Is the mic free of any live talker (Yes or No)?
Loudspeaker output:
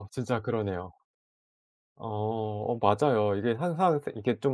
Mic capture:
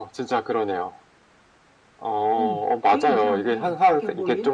No